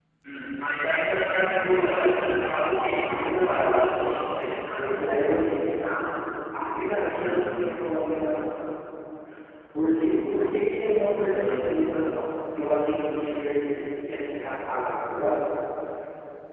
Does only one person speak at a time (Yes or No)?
No